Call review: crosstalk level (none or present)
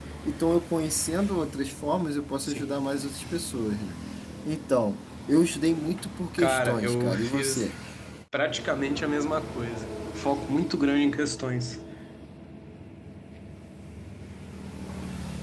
present